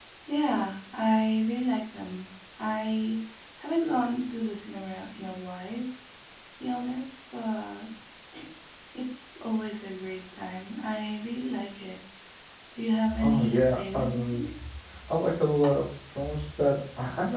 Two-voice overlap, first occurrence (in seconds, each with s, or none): 13.2 s